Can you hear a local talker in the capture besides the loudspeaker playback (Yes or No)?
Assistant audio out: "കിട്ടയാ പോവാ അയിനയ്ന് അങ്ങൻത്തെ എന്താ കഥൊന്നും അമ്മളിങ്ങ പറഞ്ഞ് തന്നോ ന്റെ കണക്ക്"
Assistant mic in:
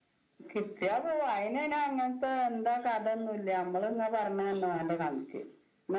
No